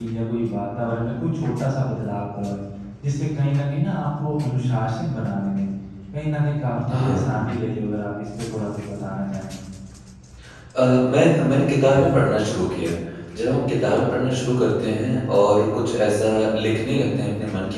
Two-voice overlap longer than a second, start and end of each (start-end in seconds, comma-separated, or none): none